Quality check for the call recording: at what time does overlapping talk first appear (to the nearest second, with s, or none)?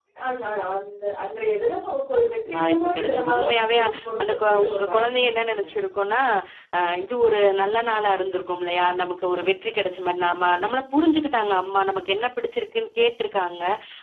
3 s